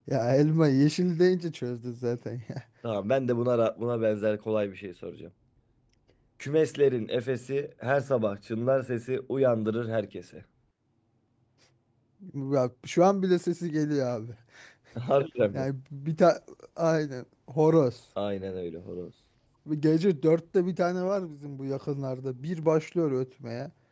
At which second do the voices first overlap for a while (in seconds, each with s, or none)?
none